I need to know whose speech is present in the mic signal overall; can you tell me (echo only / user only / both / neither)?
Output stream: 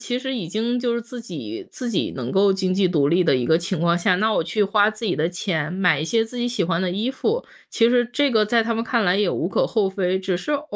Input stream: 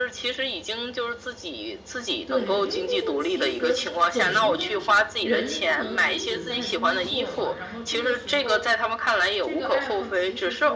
both